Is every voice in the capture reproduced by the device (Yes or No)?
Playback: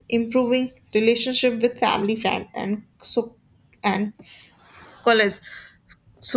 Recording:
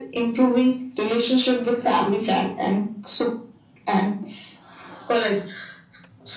Yes